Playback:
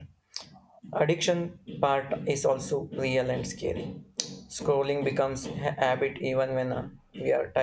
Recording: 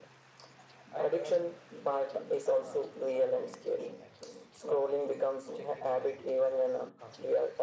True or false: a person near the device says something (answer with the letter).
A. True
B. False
A